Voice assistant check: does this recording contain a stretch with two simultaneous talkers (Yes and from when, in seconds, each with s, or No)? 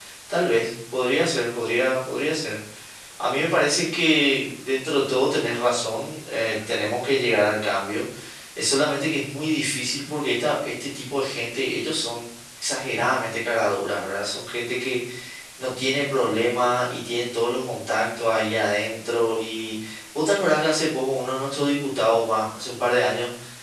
No